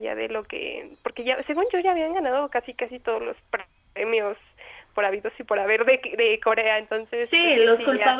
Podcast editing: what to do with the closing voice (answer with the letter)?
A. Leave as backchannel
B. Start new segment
B